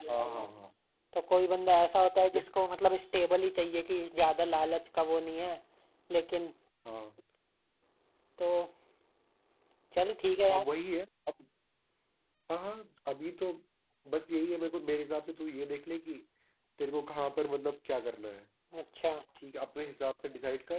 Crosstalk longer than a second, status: none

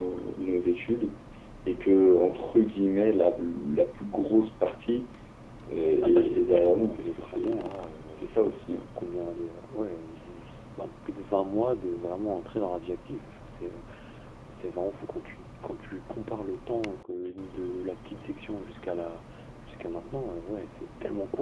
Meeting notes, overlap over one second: present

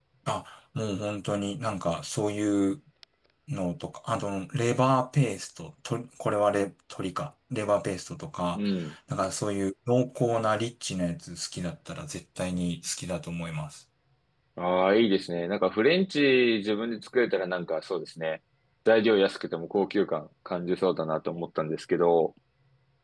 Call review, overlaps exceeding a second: none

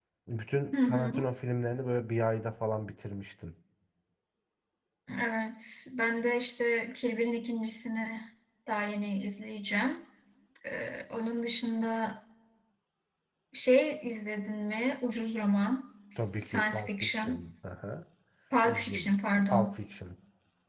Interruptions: present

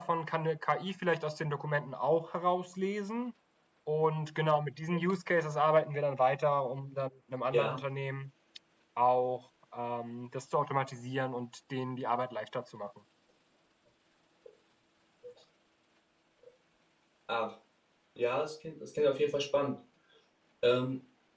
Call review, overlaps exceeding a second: none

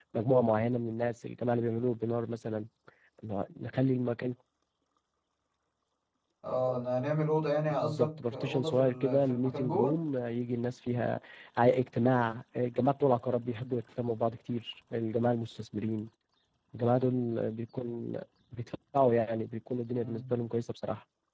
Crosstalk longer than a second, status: present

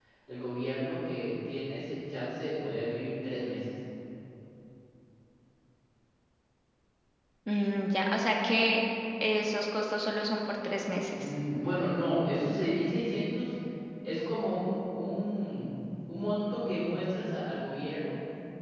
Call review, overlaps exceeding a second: none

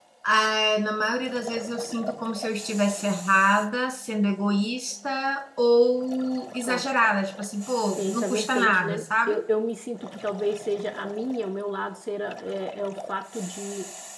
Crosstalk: present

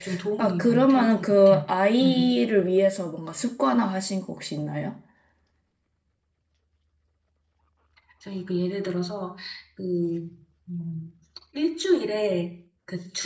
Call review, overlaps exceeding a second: present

